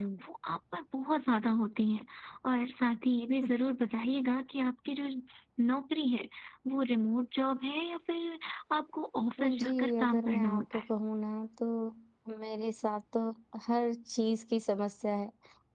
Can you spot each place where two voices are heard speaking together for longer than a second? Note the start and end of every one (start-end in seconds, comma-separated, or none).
9.4-10.8